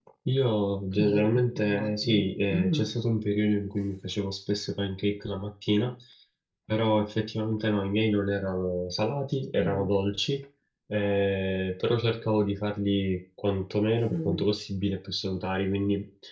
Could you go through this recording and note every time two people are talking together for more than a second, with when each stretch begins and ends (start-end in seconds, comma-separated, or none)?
0.9-2.9